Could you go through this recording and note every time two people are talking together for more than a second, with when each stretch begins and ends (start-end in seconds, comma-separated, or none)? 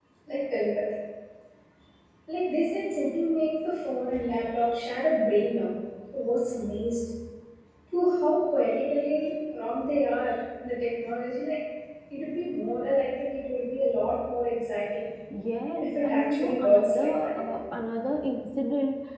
15.8-17.6